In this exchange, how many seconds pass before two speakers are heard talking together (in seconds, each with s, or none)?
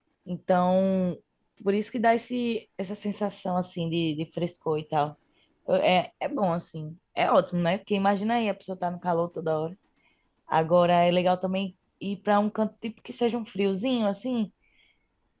none